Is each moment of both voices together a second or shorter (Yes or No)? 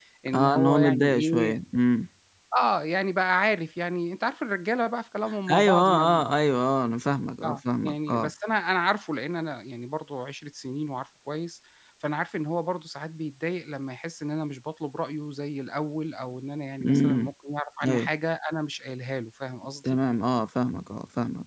No